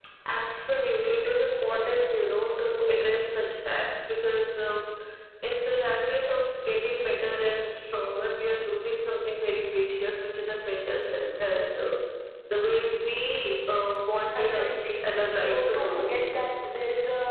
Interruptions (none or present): present